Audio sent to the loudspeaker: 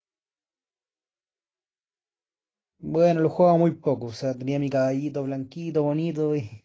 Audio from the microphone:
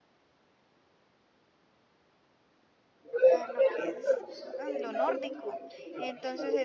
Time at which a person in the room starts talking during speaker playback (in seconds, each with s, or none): 3.3 s